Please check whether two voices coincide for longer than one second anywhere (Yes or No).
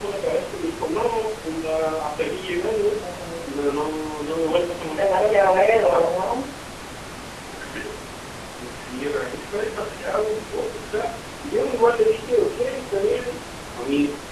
No